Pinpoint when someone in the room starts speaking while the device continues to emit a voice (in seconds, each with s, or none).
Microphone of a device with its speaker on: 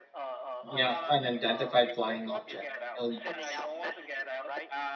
0.6 s